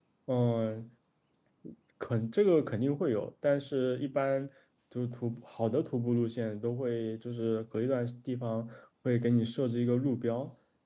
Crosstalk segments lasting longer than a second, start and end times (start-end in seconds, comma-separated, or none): none